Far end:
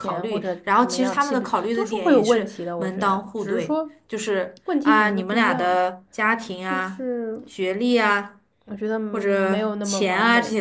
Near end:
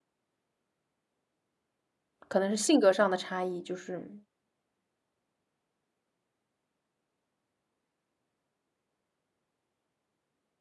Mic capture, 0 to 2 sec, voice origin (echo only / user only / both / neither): neither